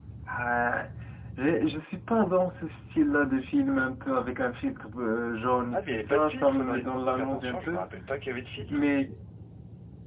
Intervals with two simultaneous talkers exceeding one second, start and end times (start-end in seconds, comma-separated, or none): 5.7-7.8